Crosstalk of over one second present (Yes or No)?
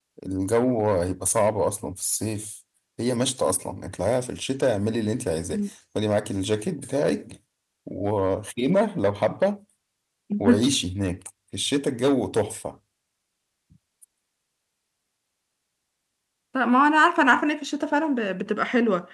No